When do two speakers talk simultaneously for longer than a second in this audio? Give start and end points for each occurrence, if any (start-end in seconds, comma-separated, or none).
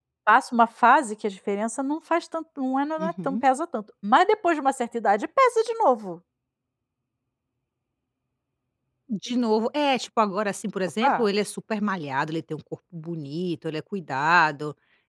none